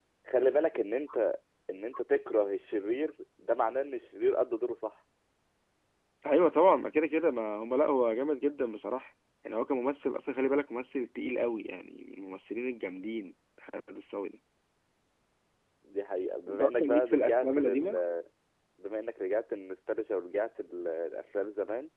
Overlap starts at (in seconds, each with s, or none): 16.5 s